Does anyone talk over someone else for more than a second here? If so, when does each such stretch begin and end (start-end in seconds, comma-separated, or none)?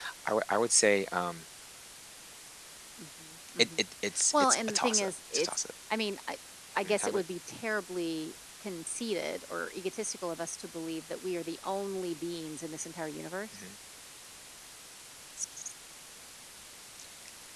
4.3-5.6